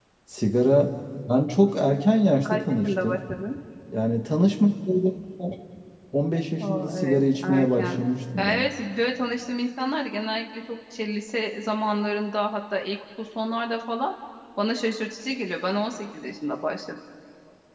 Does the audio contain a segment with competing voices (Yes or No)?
Yes